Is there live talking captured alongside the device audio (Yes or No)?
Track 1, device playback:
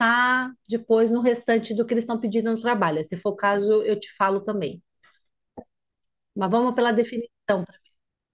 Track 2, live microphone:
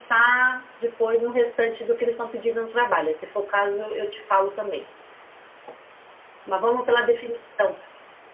No